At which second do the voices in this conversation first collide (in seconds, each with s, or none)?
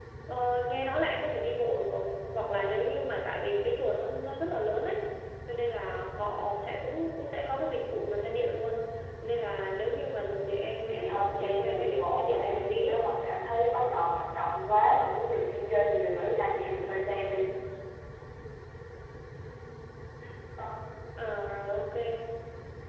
10.9 s